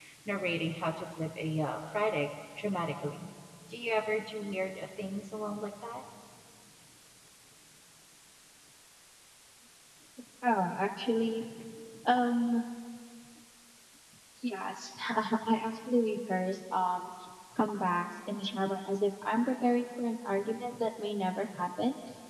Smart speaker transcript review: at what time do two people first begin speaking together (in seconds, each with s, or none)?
none